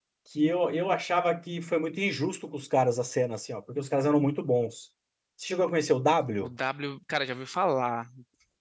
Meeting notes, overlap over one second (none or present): none